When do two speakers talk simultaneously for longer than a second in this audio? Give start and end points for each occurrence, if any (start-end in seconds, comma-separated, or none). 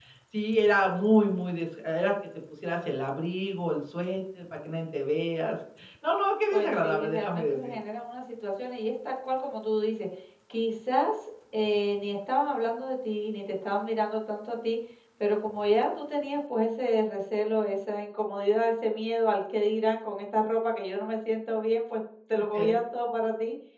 6.5-7.7